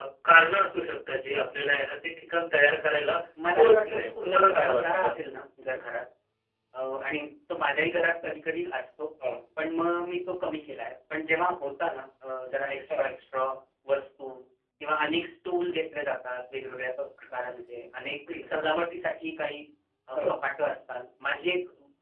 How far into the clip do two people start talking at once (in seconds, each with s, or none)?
3.6 s